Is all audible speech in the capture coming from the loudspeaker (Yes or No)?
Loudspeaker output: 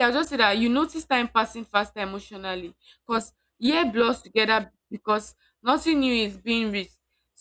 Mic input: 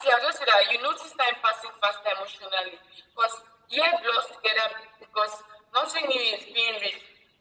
Yes